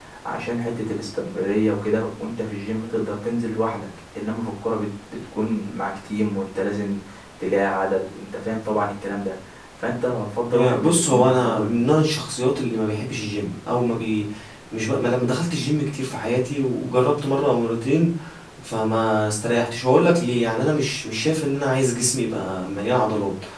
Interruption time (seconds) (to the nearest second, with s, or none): 11 s